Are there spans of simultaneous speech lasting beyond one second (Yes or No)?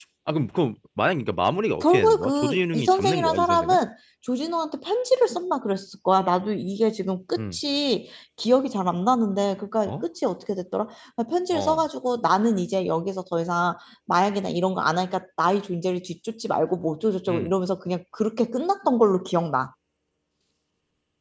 Yes